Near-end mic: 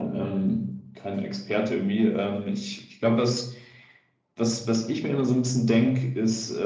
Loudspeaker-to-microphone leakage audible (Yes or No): Yes